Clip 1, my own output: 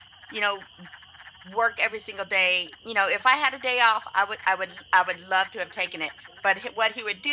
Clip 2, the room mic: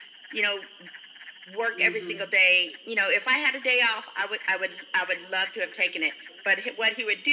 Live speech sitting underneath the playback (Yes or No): Yes